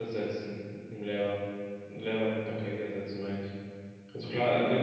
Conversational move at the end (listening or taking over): taking over